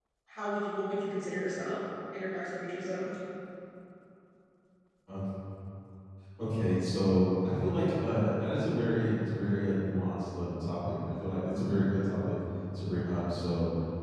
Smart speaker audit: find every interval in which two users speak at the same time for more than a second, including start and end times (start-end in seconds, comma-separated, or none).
none